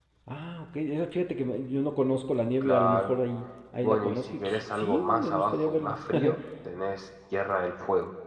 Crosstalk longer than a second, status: present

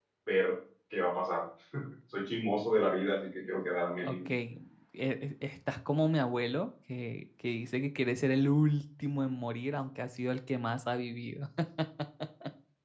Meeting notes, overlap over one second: none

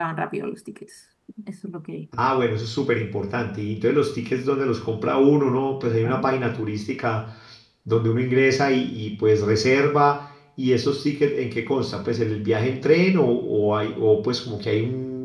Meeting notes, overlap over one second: none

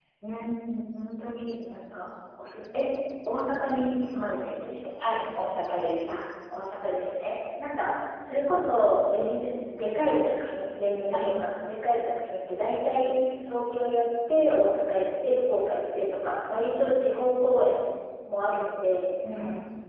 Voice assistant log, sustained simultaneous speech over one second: none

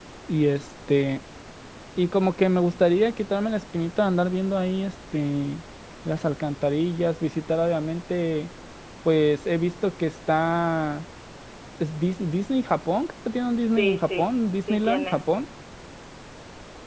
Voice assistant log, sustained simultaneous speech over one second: present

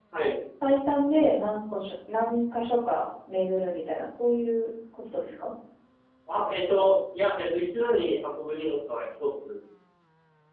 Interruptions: none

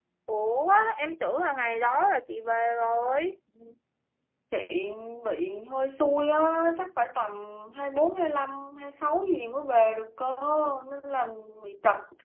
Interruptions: none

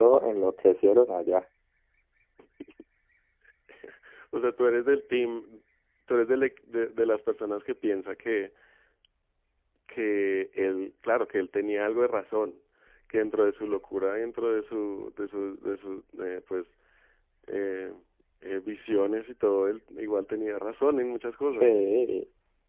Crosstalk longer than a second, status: none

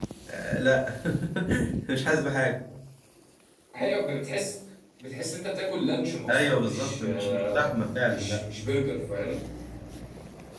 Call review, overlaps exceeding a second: present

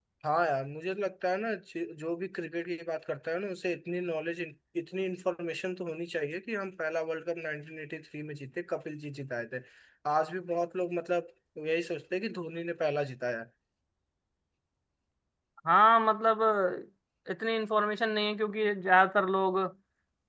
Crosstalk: none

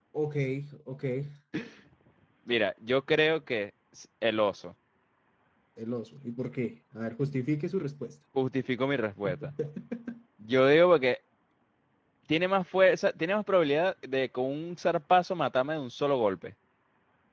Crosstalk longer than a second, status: none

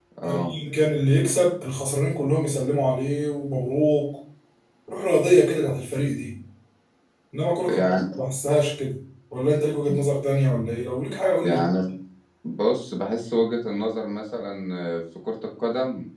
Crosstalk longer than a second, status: none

